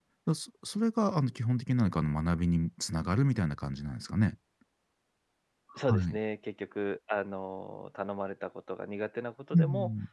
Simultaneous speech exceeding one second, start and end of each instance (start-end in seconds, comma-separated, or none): none